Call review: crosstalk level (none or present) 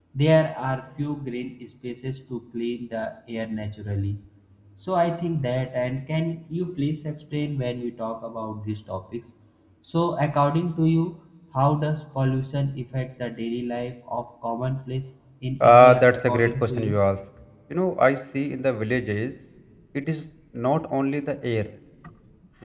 present